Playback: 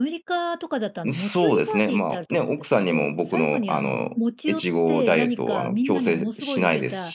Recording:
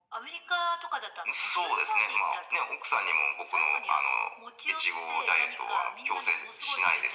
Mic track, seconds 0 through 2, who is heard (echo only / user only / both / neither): echo only